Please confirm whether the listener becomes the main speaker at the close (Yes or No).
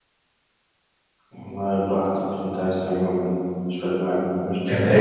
Yes